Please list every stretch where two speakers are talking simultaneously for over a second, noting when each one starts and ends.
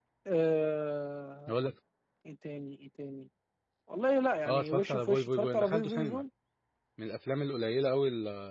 4.4-6.2

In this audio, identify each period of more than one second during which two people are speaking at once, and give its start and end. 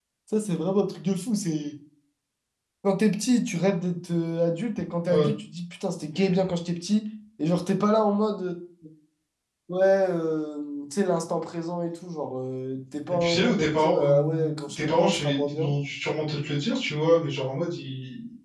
13.1-15.7

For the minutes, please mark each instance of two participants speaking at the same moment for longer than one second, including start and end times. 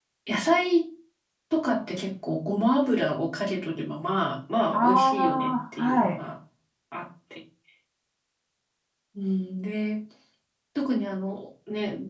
4.7-6.2

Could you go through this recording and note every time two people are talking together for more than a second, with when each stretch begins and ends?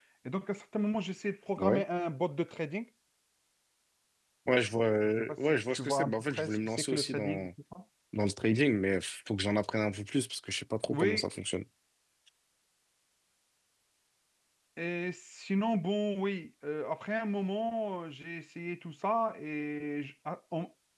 5.0-7.5

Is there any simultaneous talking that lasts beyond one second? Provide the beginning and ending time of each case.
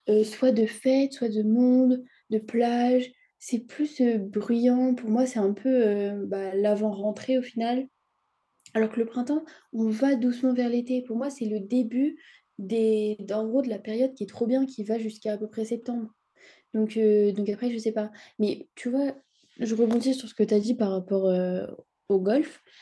none

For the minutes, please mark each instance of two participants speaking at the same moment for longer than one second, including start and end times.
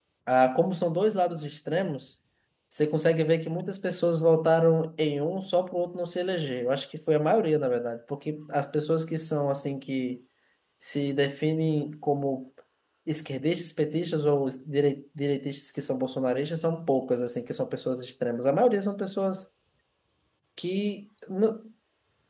none

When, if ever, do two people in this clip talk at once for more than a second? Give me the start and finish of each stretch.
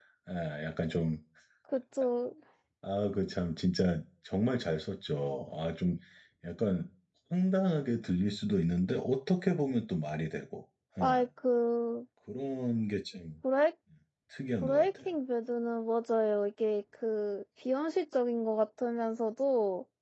none

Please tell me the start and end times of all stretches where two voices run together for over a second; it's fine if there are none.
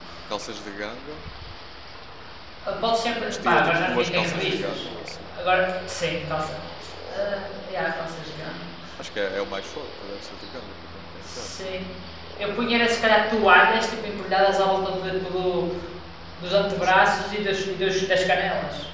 3.2-4.9

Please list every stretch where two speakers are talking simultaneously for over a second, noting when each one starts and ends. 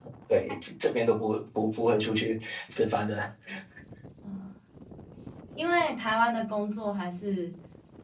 none

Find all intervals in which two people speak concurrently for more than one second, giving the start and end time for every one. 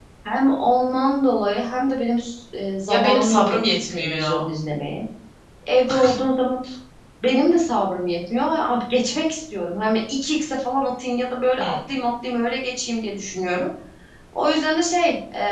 2.9-4.5

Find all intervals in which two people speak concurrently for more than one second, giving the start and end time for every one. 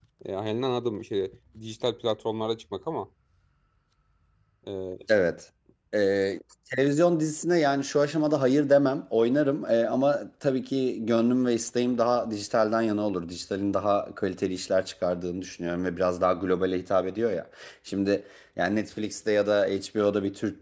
none

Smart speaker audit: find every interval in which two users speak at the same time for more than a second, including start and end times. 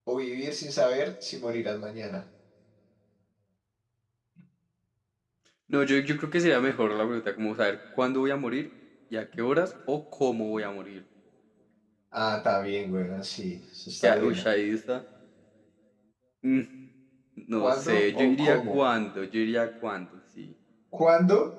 17.6-18.8

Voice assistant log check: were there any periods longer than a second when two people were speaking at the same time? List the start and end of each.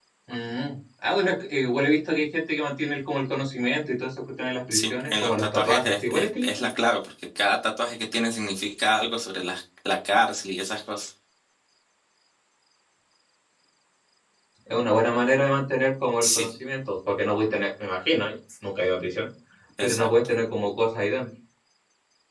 4.7-6.7

